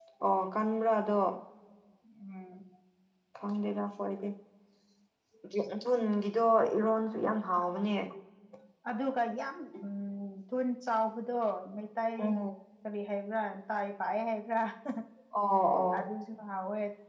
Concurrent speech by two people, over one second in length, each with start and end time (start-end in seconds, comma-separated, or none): none